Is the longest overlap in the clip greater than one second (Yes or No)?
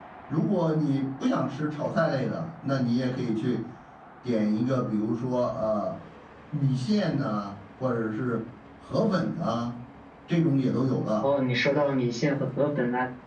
No